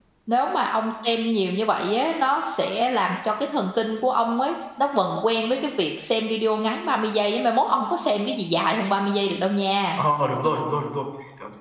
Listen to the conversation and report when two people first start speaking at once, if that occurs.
none

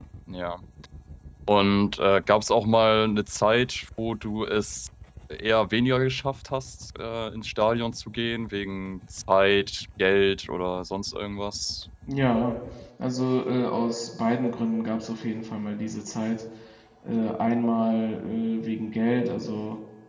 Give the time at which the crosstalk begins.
none

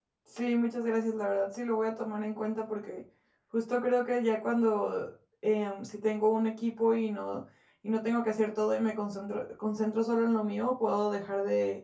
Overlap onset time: none

